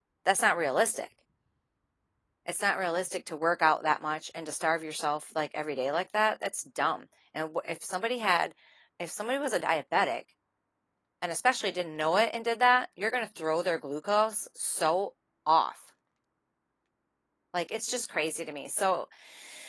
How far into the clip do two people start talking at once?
none

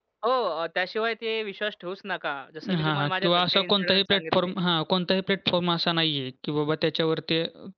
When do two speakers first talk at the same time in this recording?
3 s

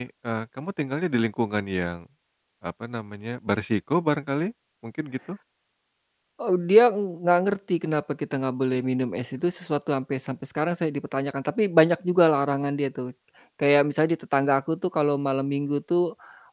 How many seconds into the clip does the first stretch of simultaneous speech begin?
none

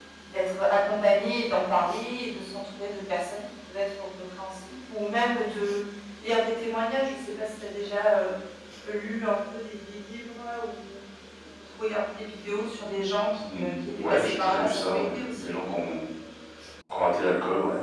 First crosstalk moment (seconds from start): 13 s

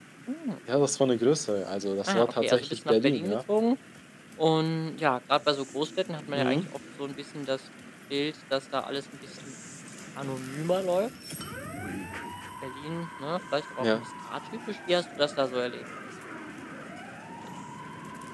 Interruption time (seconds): 2 s

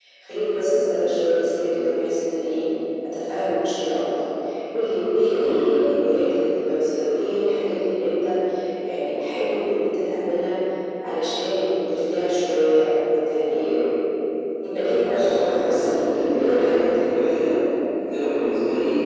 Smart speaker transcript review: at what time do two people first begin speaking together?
15 s

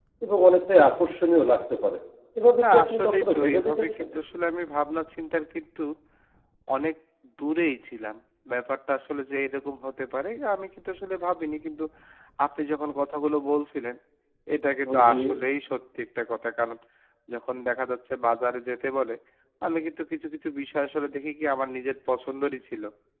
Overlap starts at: 3 s

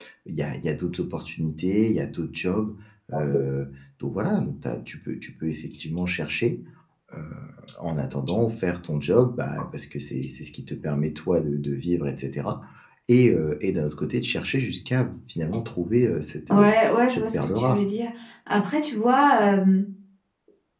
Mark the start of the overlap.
16 s

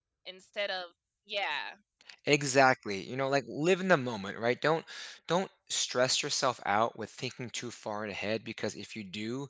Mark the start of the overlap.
none

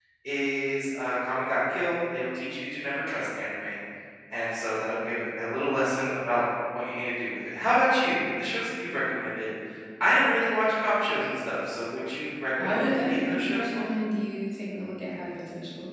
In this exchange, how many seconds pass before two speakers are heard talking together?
13 s

